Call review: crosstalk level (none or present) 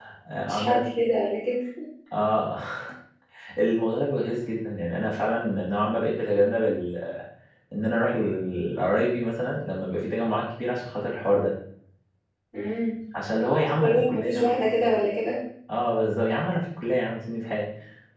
present